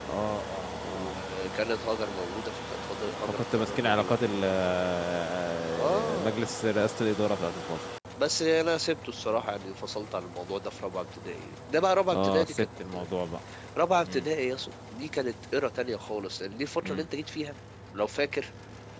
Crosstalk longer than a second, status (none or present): present